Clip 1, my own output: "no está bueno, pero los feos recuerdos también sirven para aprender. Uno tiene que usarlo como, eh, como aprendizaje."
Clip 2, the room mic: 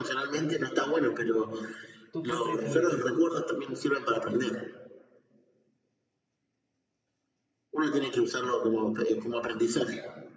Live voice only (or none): ¿Tú qué prefieres?